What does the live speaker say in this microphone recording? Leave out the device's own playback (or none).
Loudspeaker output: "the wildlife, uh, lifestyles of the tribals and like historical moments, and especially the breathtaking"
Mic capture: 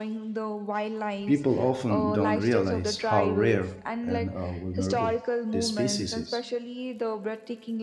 People often don't realize how rare and uh, vulnerable this species is.